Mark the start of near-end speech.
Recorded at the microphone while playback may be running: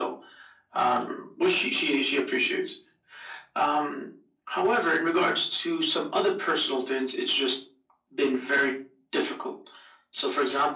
none

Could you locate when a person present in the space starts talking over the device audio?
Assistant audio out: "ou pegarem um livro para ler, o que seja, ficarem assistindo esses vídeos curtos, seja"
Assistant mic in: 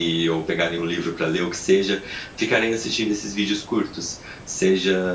none

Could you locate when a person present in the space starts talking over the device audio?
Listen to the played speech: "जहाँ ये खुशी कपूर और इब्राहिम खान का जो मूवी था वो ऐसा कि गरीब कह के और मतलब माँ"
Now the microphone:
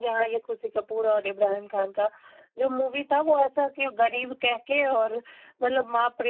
none

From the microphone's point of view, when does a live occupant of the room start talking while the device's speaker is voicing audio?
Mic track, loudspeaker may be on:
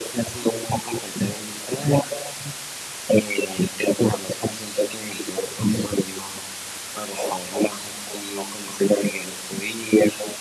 none

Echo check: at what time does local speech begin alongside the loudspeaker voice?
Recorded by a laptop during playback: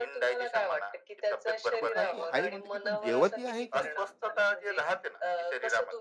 1.8 s

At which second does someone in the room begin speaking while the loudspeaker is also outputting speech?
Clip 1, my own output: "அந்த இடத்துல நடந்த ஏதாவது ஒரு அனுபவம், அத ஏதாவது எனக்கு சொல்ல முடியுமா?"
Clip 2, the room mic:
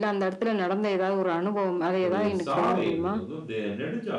2.0 s

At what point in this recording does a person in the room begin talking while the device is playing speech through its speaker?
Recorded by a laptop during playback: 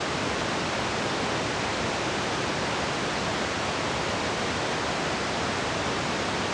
none

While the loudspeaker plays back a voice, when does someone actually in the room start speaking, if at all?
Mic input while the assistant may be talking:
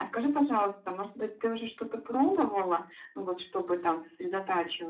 none

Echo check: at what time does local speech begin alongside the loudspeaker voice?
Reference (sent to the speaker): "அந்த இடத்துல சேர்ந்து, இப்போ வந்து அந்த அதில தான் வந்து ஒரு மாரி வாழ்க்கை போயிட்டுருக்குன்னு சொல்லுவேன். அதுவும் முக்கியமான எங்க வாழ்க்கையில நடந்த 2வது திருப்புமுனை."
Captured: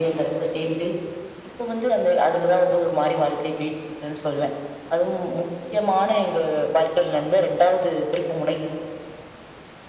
none

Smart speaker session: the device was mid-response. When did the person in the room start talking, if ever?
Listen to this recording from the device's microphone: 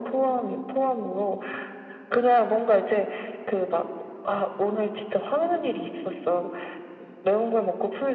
none

